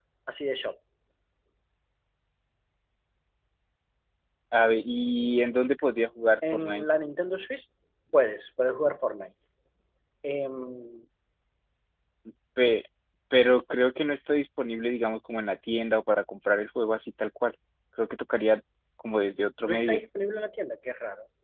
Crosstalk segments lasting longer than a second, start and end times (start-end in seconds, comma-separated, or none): none